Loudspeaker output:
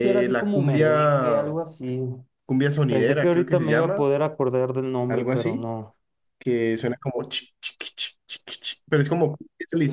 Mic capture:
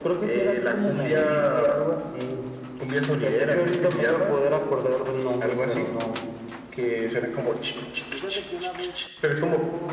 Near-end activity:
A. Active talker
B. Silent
A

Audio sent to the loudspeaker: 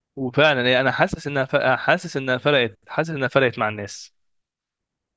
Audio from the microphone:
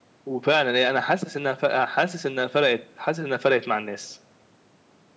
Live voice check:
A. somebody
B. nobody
B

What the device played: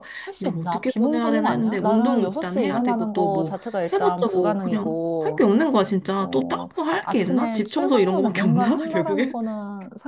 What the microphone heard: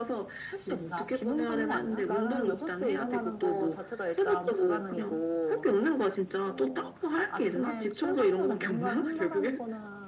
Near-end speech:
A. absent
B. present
A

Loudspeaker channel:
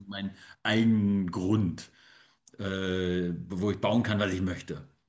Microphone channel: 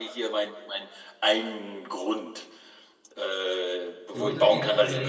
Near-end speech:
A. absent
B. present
B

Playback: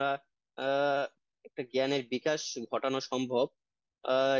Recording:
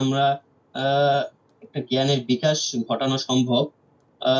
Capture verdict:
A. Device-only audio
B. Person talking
A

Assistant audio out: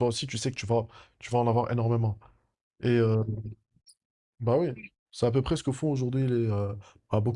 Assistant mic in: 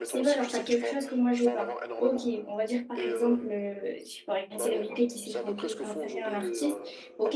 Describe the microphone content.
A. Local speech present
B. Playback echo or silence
A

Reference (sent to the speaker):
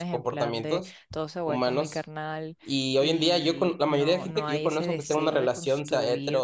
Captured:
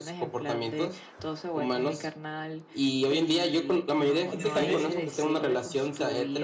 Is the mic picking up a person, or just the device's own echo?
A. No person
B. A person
B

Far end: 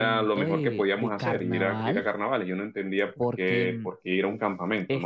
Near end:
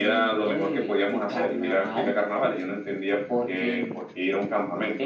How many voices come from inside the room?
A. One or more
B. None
B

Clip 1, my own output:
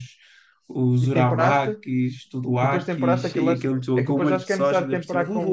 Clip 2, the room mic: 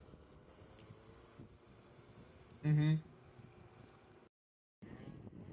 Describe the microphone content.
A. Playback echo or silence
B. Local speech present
B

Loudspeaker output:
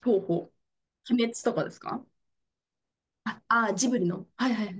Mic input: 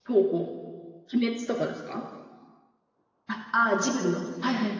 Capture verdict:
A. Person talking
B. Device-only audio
B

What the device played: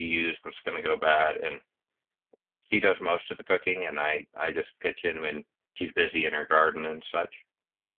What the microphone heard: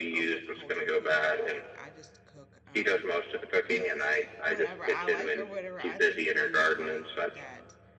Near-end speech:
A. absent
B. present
B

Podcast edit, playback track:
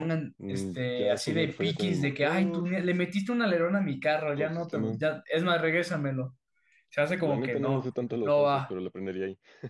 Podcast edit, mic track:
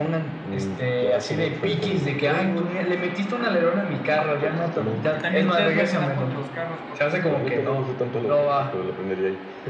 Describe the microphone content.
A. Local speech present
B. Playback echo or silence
A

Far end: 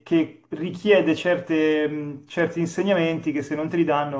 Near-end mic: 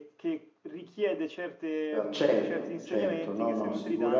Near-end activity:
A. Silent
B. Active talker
B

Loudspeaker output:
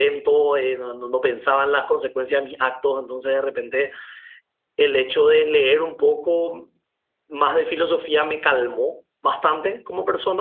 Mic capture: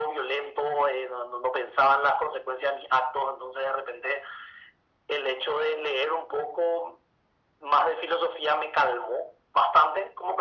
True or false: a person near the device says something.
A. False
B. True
A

